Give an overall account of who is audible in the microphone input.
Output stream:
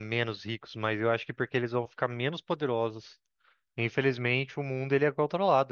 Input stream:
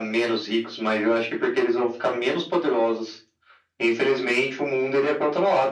echo only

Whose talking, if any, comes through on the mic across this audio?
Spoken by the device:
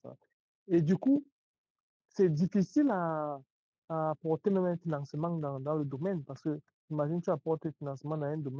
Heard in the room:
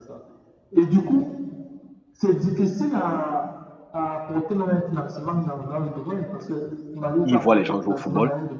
both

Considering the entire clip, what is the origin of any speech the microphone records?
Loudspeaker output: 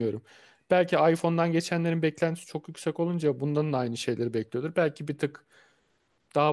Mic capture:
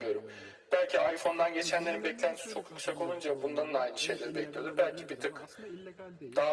both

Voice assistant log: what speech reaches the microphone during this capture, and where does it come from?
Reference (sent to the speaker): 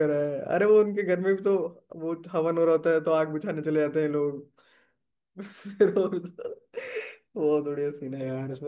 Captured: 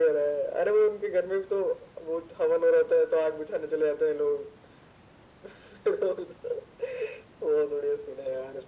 echo only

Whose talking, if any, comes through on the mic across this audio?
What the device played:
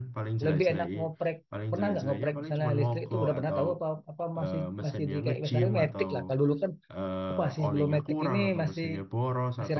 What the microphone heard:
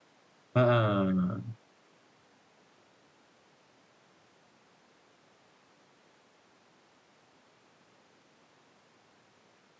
user only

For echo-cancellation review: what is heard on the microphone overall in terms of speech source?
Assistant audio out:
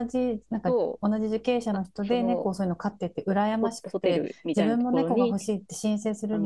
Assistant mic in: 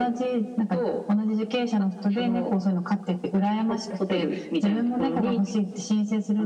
echo only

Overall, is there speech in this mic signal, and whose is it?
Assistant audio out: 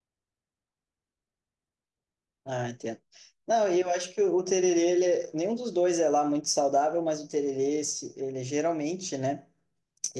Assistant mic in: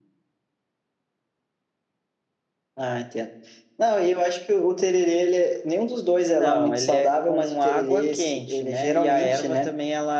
both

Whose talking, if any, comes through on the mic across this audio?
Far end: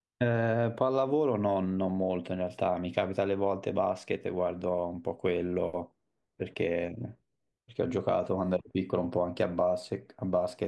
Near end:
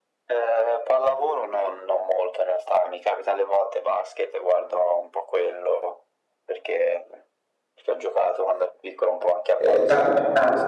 both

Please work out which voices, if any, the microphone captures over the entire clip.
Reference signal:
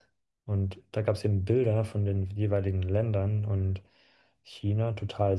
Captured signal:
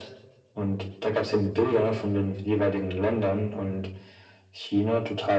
echo only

